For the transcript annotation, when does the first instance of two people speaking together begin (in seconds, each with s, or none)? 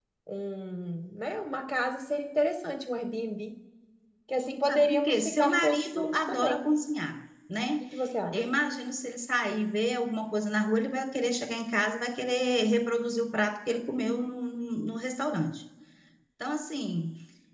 4.7 s